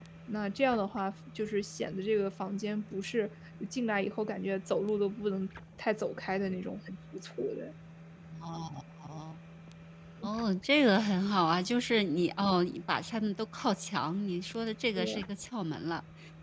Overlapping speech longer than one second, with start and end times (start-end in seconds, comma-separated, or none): none